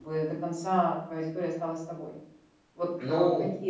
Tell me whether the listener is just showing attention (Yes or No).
Yes